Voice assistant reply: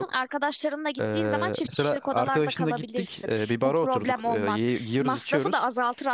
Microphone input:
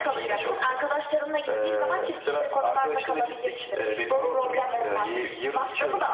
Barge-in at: none

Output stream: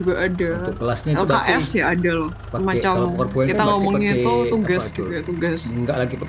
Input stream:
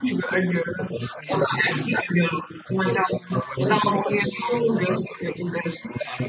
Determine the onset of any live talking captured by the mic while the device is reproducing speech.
none

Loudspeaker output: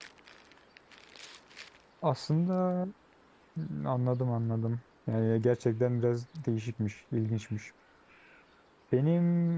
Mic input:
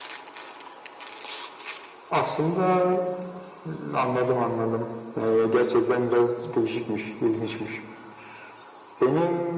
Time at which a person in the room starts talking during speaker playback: none

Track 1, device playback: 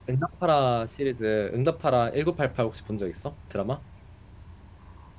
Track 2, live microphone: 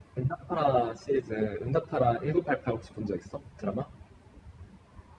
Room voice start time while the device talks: none

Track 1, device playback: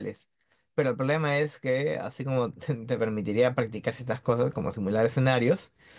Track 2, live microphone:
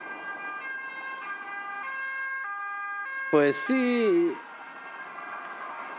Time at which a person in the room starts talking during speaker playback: 3.3 s

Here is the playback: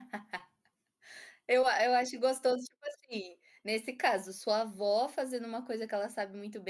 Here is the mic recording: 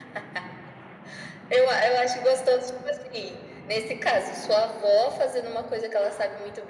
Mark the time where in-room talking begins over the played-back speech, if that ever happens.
none

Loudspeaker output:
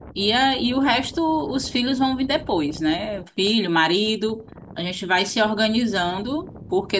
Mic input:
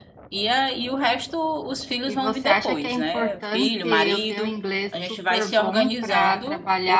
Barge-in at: 2.0 s

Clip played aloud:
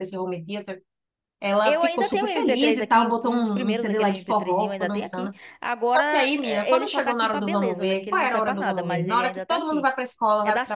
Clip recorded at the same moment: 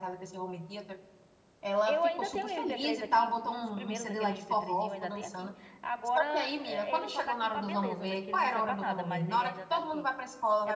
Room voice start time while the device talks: none

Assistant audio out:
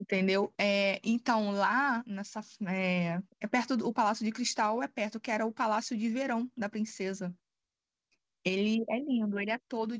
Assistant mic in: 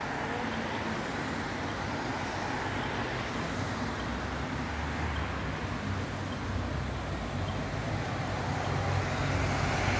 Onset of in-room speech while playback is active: none

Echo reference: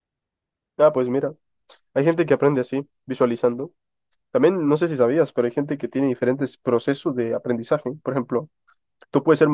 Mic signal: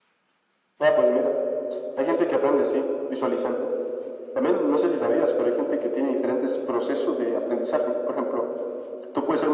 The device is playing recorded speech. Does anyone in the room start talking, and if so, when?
none

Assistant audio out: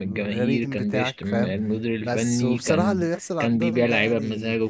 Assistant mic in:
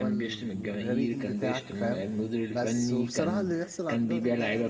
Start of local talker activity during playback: none

